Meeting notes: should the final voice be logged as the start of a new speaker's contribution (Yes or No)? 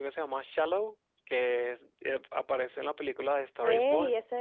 Yes